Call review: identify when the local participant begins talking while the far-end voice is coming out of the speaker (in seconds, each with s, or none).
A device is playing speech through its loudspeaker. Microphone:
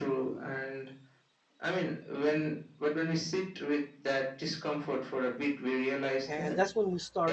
6.2 s